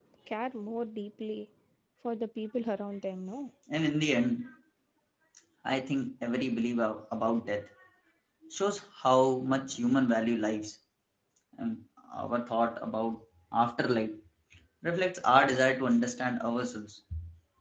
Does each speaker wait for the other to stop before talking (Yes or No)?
Yes